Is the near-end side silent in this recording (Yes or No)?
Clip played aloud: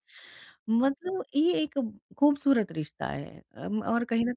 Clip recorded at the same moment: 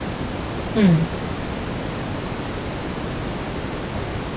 No